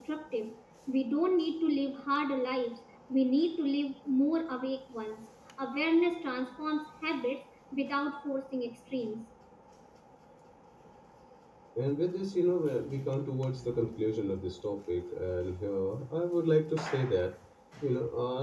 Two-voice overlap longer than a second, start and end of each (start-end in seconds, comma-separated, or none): none